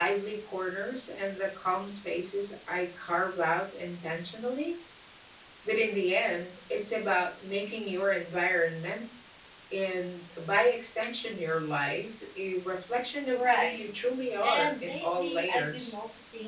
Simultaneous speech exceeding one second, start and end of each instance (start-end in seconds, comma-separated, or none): 14.4-15.9